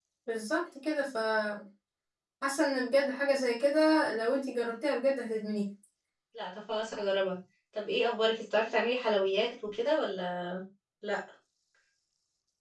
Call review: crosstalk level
none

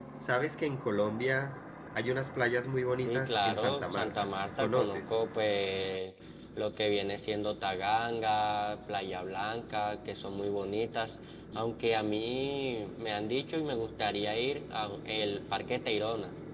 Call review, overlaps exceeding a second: present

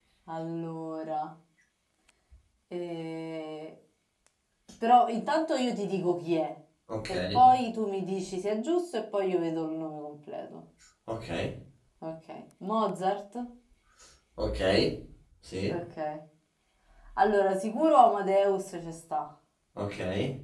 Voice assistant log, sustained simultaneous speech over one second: none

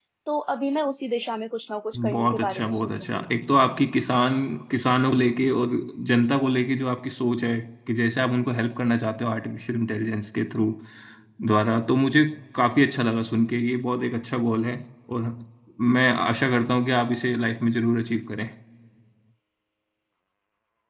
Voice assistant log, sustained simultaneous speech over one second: present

